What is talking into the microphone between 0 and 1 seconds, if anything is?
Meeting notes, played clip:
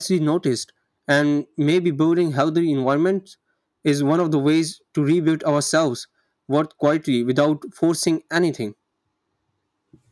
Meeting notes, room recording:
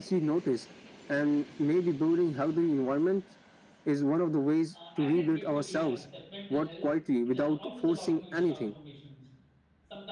echo only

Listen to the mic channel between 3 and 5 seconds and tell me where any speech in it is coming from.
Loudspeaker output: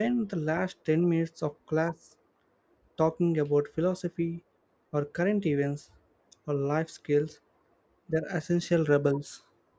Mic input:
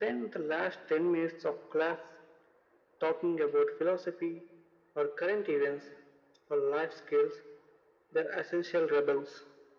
echo only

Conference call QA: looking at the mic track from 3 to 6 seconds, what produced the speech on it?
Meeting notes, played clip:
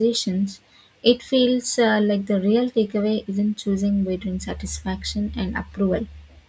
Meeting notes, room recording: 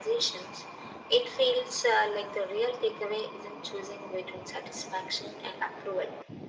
echo only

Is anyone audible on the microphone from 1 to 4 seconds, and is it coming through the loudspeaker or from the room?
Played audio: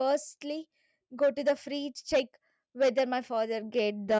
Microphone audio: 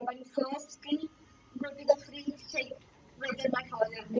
echo only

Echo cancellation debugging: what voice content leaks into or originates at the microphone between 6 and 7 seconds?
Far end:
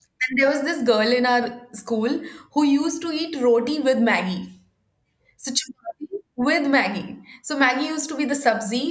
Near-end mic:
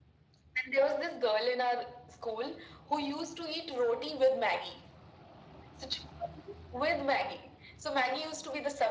echo only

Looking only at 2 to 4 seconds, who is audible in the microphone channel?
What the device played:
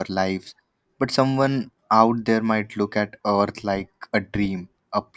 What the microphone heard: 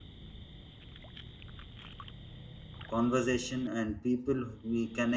user only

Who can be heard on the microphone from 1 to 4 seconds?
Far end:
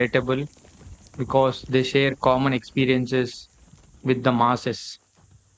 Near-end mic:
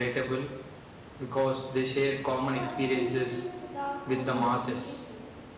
both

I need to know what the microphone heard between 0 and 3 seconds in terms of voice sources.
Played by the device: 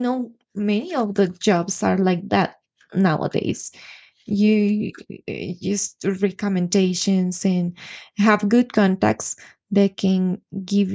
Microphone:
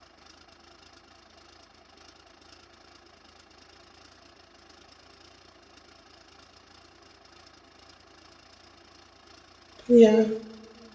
neither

